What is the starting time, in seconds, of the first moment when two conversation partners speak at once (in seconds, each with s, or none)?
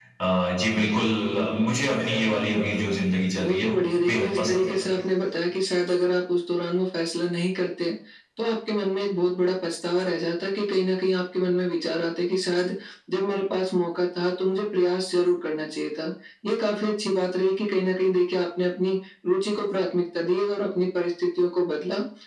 3.4 s